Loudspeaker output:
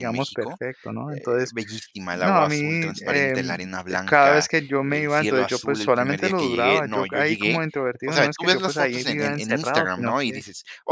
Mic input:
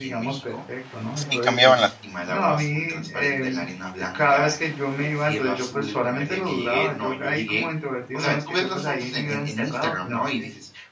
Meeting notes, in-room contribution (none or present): present